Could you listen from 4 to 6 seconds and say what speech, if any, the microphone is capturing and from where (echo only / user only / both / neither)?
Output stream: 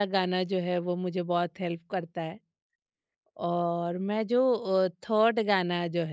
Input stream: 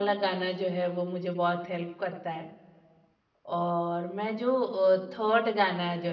echo only